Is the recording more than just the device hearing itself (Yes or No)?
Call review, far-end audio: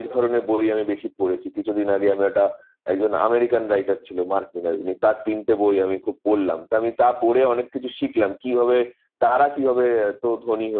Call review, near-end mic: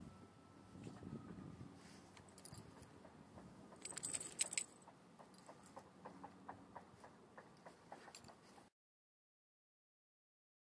No